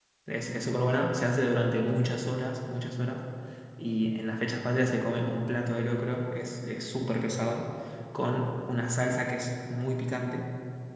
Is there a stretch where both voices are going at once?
No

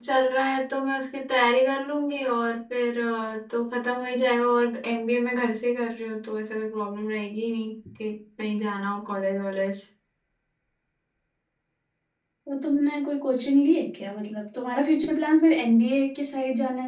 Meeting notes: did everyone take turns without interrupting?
Yes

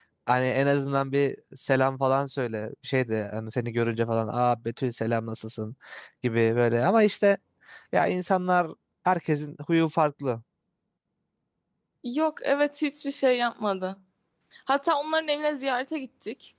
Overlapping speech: No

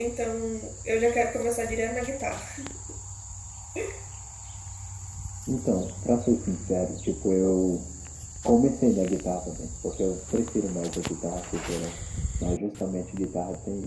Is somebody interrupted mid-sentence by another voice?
No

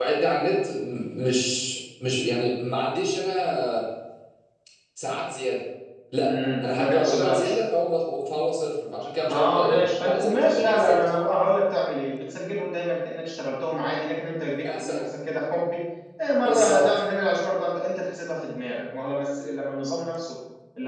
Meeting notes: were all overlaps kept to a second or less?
No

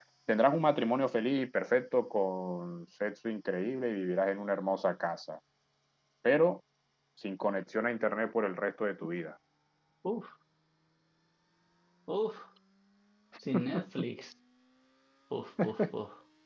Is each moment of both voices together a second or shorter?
Yes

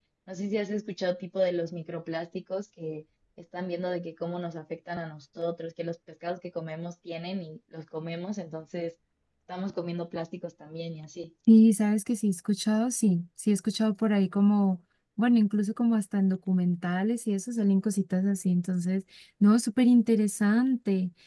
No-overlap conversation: Yes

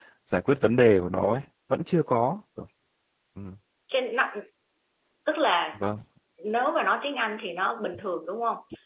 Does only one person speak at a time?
Yes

